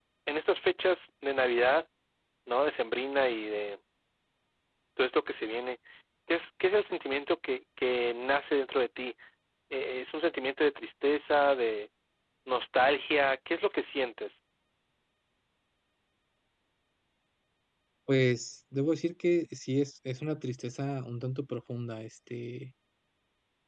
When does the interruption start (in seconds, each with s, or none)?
none